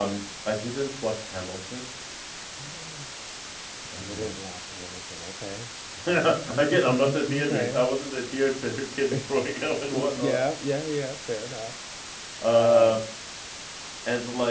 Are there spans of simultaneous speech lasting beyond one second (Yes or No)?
Yes